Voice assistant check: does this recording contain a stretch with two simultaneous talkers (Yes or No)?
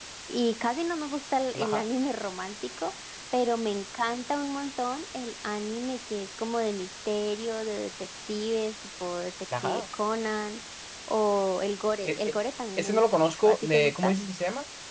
Yes